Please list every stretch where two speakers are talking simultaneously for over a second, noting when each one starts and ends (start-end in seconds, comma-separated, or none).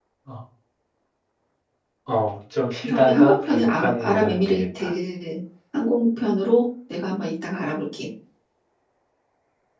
2.7-4.9